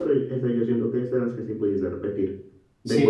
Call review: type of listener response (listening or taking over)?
taking over